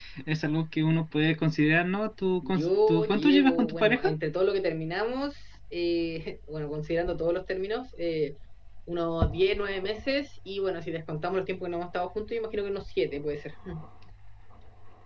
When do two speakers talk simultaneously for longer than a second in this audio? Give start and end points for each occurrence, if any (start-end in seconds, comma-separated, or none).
2.5-4.1